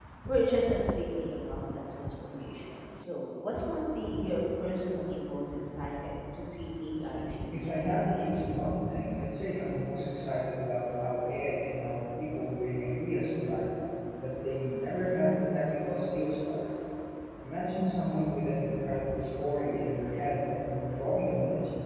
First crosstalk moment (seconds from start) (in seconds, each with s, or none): 7.5 s